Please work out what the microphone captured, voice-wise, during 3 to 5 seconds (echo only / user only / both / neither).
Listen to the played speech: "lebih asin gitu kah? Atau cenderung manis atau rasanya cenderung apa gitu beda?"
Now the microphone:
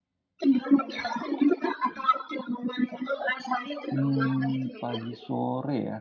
both